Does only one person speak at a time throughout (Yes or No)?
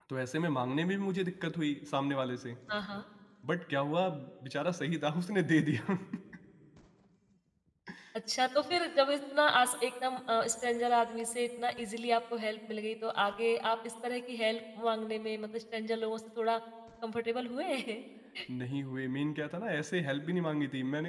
Yes